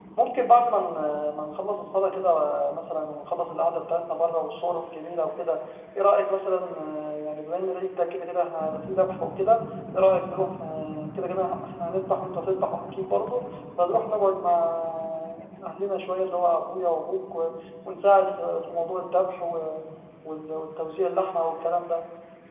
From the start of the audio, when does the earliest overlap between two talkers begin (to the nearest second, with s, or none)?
none